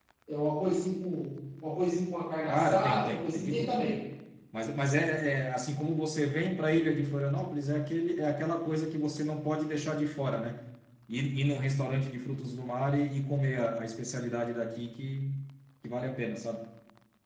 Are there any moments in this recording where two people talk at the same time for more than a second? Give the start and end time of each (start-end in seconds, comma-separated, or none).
2.5-3.8